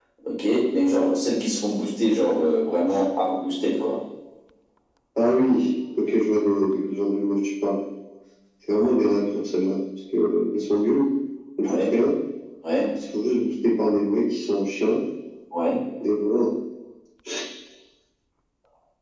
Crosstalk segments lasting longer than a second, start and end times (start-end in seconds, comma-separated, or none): none